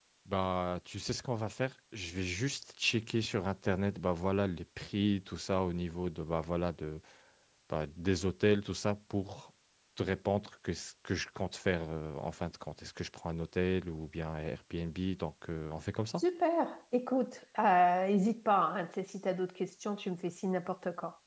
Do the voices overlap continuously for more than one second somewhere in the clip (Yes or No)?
No